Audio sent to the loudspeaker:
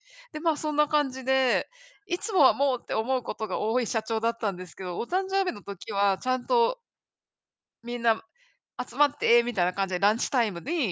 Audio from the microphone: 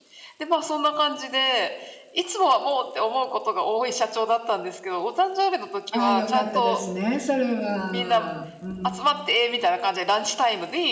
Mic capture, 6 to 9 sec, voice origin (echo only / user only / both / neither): both